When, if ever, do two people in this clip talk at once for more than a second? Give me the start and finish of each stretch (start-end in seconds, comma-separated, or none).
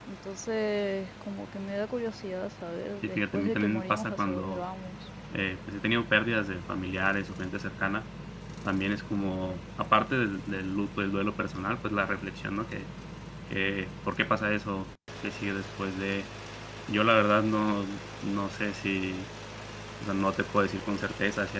3.0-4.6